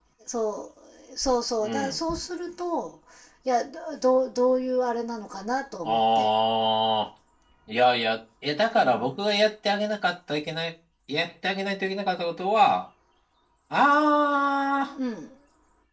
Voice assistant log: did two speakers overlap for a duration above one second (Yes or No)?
No